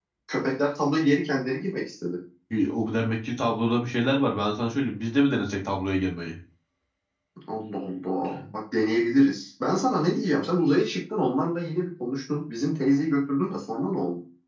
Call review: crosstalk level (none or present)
none